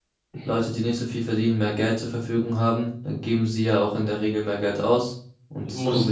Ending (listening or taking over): taking over